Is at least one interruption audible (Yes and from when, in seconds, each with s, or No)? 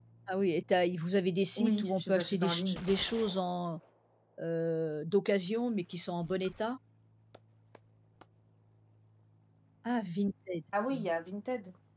Yes, from 1.6 s